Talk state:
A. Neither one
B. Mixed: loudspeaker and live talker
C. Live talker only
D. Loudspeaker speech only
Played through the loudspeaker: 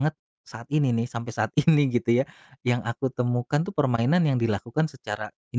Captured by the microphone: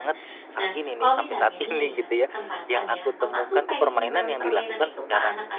B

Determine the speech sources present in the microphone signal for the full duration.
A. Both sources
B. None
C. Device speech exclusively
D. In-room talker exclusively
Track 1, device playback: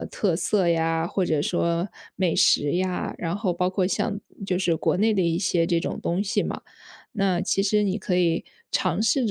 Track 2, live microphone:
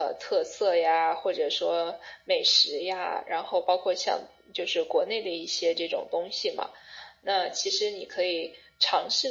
C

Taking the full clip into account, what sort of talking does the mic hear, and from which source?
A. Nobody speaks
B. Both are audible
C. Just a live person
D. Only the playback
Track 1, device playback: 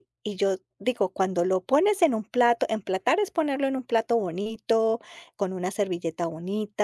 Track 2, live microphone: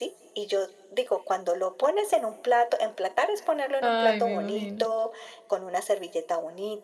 B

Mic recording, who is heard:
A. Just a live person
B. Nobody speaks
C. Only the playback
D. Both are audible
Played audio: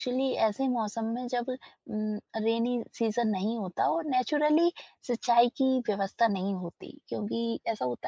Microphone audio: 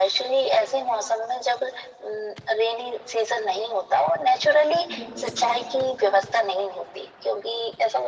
D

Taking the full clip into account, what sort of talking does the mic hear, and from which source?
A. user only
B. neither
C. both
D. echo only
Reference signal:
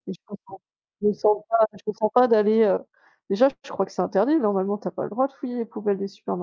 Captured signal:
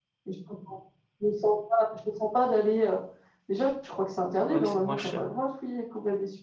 C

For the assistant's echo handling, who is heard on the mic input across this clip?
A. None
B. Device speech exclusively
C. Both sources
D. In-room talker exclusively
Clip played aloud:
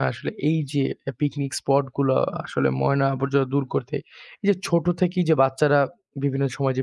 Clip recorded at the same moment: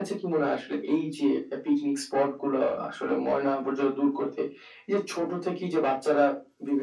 B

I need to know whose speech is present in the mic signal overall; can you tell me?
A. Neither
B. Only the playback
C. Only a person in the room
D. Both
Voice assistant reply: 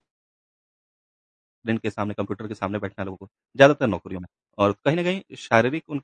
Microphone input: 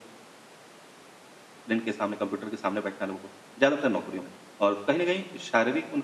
B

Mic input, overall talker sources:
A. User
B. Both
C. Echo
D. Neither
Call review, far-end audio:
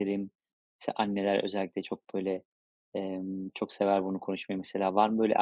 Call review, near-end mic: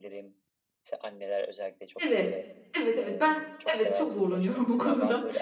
B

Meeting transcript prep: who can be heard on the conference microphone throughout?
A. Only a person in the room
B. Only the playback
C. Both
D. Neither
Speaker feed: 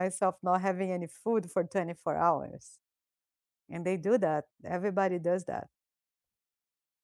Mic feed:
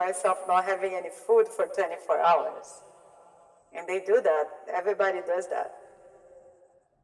B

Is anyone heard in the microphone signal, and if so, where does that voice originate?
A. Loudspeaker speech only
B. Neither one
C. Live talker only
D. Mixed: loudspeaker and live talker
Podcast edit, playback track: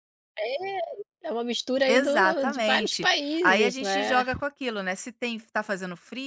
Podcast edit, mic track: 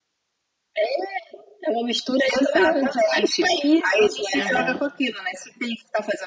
D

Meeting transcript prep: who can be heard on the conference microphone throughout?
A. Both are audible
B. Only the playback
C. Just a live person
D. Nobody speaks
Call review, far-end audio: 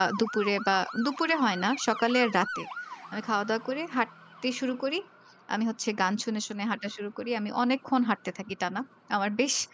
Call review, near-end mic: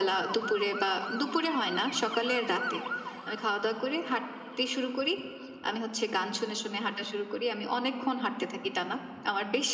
B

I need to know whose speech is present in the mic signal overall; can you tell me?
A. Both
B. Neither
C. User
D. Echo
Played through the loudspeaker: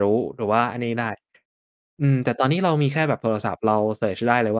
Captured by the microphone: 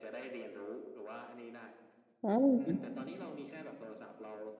A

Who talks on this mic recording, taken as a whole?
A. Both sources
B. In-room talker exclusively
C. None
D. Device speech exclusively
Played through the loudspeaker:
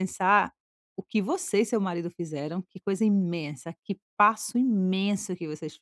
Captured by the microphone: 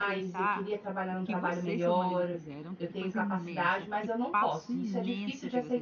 A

